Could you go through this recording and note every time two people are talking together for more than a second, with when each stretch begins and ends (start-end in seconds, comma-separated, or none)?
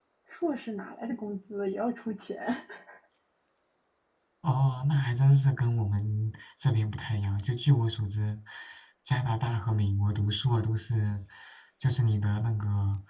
none